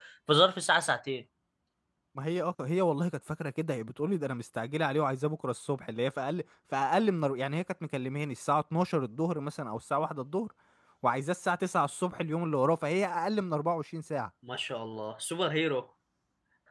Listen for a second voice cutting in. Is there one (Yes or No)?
No